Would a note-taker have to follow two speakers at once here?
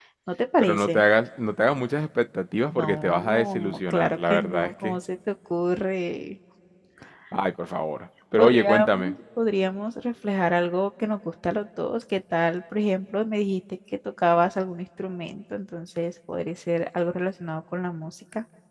Yes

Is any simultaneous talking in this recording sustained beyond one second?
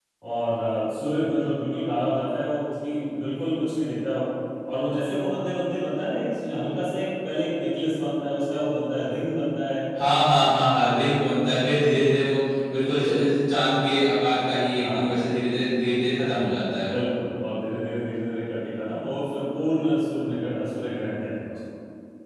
No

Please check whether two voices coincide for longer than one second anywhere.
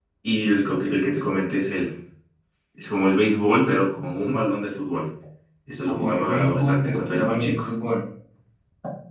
Yes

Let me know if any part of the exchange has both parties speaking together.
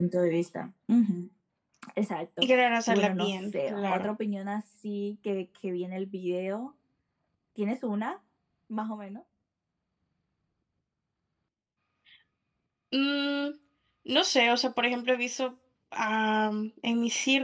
Yes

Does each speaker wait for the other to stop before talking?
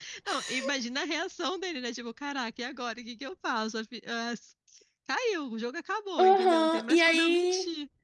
No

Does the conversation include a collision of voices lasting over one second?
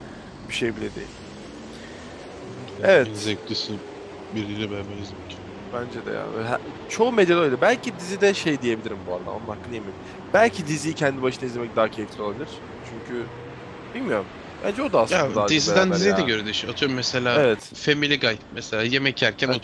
Yes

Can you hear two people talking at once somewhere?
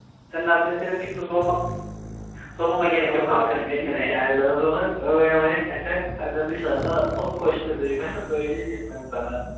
Yes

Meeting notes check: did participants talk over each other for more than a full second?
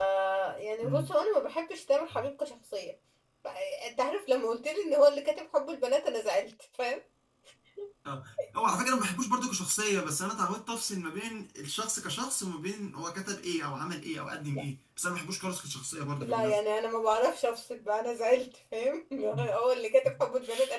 No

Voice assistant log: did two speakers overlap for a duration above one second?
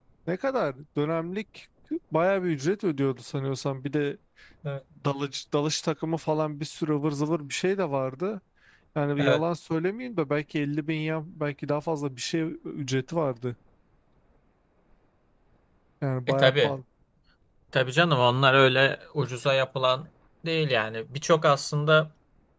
No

